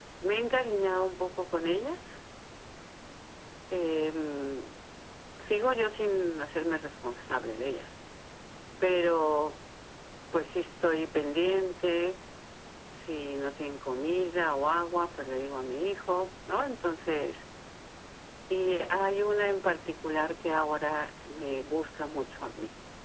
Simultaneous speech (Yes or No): No